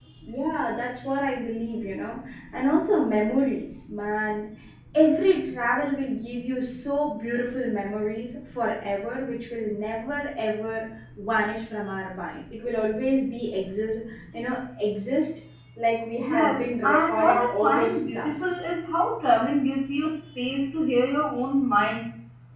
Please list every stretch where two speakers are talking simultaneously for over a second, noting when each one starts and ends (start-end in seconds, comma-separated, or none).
16.2-18.3